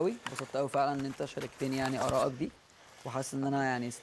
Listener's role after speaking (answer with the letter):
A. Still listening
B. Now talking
A